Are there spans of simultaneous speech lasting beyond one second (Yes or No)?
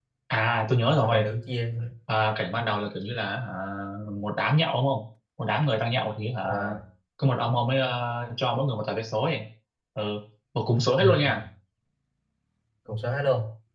No